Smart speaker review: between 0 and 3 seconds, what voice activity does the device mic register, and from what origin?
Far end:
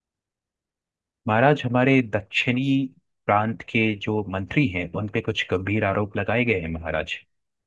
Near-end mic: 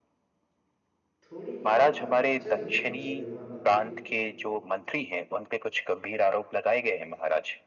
both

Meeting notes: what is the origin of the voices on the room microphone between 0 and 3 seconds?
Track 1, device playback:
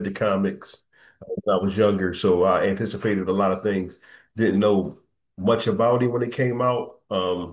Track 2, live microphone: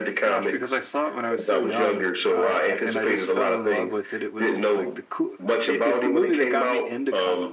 both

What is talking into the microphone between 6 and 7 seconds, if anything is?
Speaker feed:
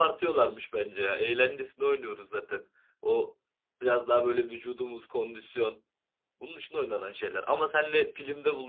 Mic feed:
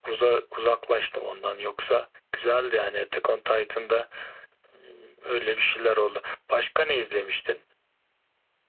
user only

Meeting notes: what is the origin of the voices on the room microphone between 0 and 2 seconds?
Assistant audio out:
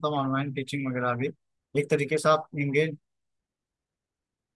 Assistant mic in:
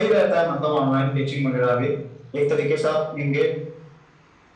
echo only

